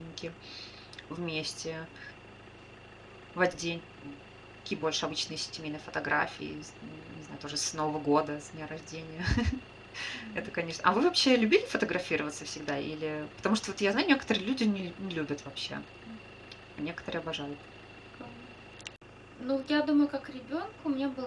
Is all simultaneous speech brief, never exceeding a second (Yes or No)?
Yes